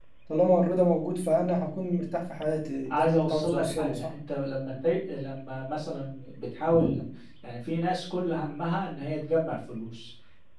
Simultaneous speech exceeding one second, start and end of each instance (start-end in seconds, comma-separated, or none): 2.9-4.1